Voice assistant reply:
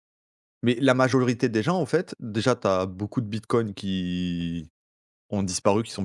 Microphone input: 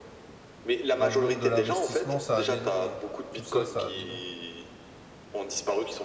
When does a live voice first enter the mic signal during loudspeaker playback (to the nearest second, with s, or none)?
1 s